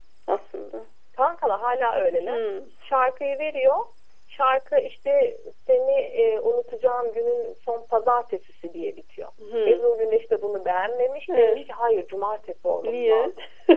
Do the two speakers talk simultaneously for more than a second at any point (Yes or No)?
No